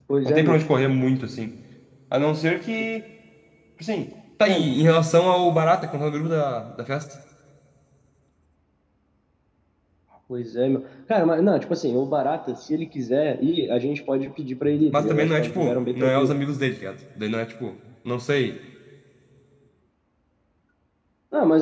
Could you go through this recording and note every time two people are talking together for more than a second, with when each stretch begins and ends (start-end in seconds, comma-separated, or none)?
14.9-16.3